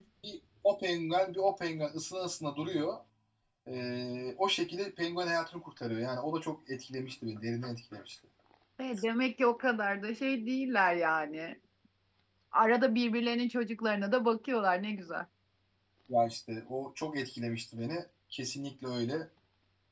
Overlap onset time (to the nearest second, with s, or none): none